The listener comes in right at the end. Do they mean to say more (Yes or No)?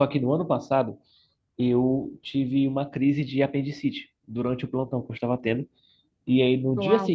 No